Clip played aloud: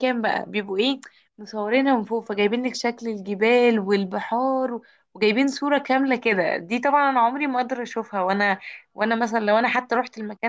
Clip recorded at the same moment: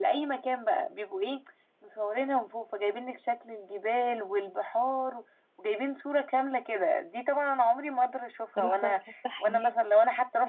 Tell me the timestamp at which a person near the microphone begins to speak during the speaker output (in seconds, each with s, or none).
8.6 s